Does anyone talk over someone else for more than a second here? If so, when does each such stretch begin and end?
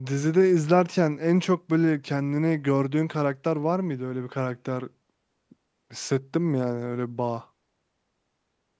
none

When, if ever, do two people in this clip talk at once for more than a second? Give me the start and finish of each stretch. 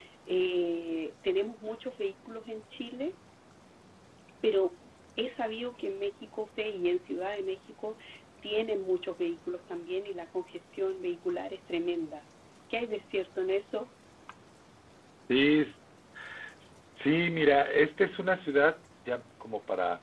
none

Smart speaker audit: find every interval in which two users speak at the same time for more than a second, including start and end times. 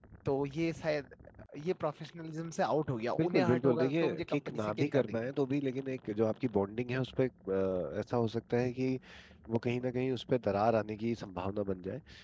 3.2-5.3

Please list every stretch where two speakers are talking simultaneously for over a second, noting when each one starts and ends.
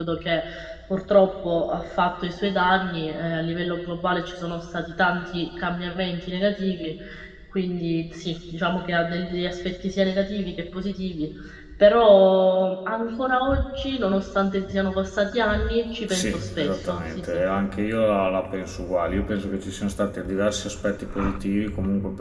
16.1-17.4

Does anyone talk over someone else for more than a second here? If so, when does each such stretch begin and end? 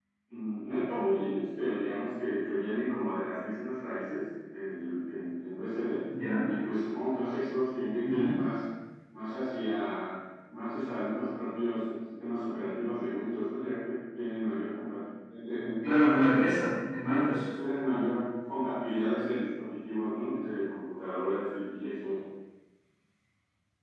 none

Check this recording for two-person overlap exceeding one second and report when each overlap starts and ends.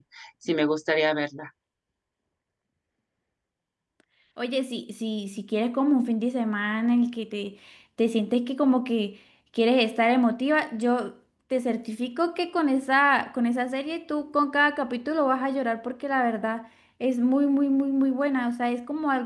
none

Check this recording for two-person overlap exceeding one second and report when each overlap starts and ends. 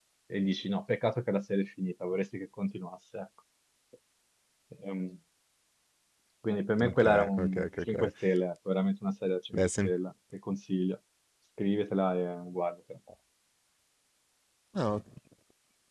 6.8-8.1

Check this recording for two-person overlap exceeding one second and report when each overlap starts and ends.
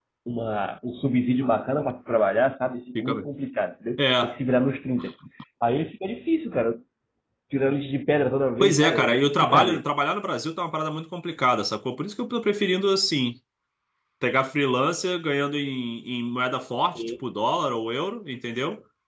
8.6-9.8

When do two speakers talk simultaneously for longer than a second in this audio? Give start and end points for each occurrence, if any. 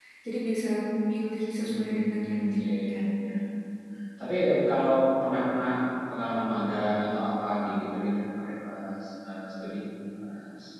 1.6-3.0

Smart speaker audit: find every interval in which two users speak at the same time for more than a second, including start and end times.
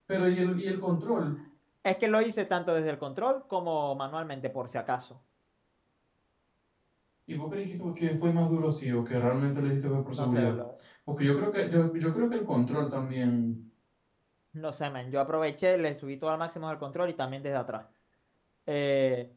none

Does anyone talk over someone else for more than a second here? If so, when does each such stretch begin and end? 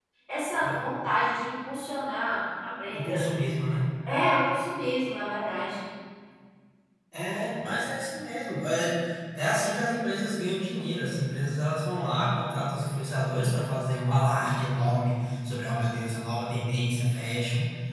none

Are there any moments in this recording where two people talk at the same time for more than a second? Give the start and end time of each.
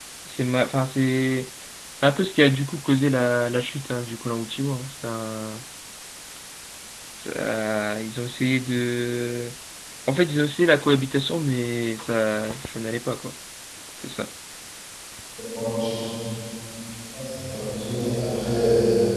none

